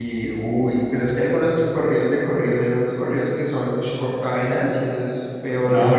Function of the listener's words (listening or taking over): taking over